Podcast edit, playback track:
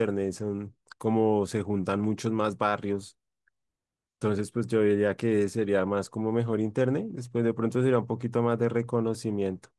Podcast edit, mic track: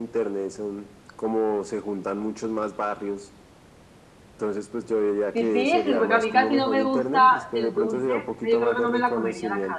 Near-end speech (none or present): present